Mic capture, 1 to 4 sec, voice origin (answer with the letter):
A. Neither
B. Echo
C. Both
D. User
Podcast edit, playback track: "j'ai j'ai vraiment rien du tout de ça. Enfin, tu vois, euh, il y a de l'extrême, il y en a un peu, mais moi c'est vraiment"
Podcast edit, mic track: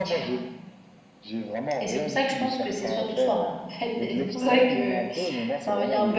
C